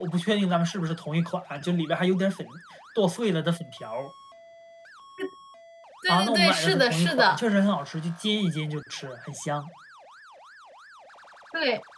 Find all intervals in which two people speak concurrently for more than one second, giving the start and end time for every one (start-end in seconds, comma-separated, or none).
6.1-7.4